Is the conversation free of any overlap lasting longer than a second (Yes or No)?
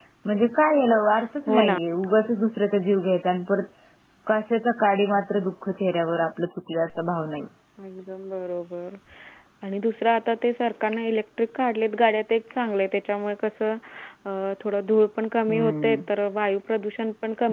Yes